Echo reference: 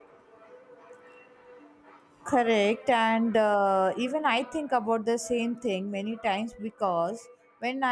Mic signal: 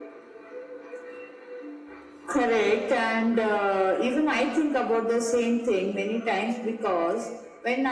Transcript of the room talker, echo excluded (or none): none